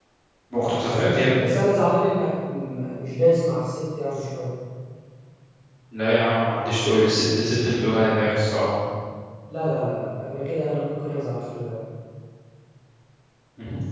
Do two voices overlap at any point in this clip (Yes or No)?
No